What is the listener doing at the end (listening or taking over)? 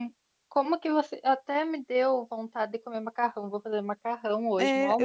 taking over